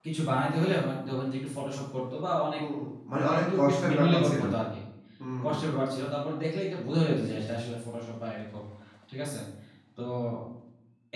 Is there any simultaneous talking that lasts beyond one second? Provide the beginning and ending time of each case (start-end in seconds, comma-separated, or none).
3.2-4.4